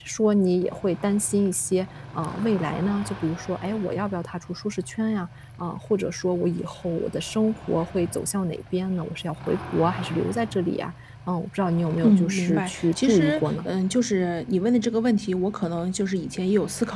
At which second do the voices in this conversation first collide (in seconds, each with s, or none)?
12.0 s